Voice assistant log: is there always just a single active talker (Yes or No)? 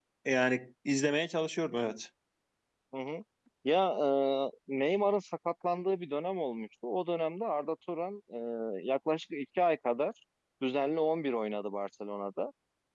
Yes